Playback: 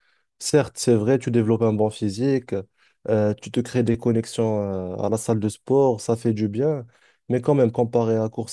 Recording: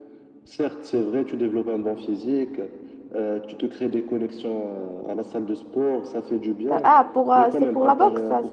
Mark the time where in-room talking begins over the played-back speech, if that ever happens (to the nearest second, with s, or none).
7 s